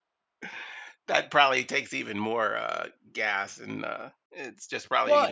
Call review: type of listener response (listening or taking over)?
taking over